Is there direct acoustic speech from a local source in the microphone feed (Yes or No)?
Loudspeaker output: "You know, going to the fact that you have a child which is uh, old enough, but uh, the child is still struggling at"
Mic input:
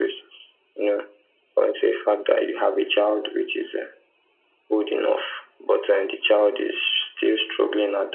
No